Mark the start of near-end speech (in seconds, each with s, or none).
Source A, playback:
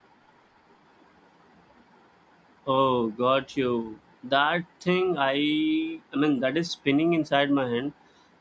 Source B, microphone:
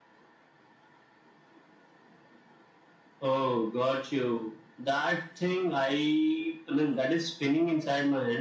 none